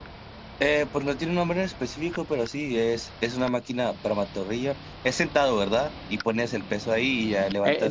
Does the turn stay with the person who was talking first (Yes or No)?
No